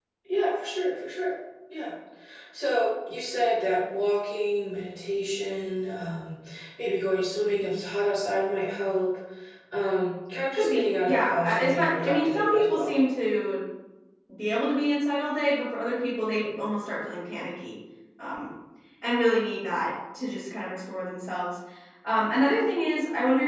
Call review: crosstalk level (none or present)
present